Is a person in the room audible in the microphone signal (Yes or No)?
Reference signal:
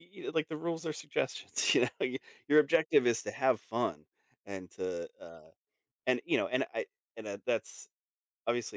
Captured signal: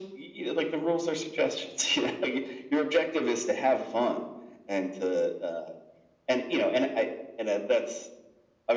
No